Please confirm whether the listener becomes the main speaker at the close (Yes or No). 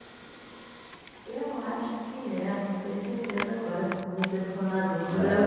Yes